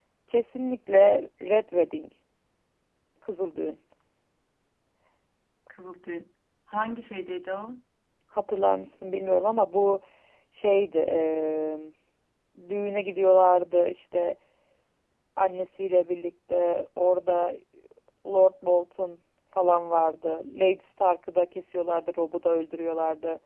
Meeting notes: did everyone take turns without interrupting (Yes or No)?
Yes